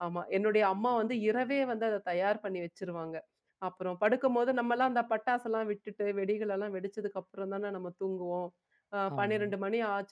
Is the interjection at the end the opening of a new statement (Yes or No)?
No